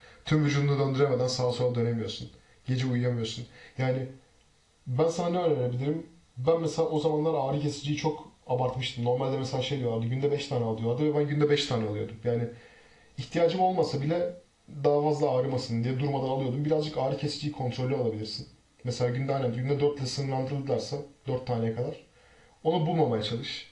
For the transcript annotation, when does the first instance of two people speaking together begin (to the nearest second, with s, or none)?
none